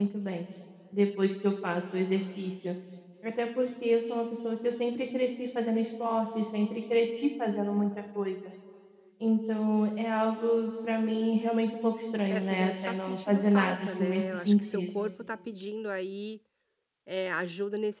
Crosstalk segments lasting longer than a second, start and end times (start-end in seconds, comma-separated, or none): 12.3-15.1